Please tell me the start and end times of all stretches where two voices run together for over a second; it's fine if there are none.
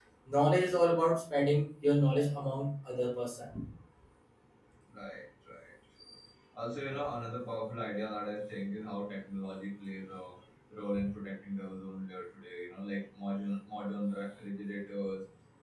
none

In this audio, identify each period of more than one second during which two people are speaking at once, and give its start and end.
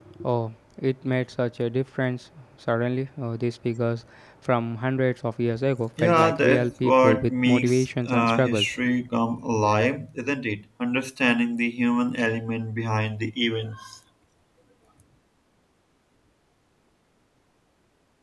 6.0-8.8

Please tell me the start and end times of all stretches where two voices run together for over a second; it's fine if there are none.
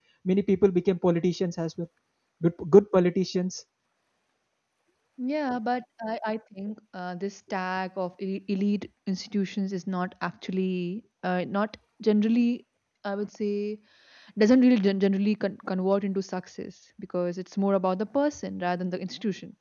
none

